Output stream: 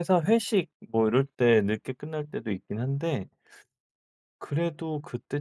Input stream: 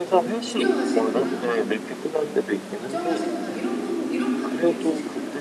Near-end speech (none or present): present